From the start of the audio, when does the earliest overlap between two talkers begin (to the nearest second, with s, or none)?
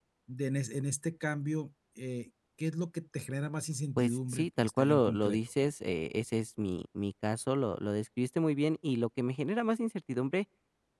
4 s